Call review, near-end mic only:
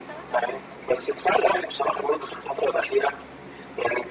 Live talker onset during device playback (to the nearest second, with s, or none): none